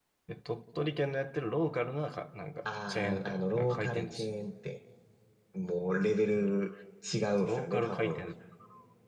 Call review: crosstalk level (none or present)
present